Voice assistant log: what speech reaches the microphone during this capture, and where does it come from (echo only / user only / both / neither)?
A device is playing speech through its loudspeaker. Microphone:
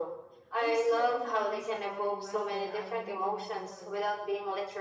both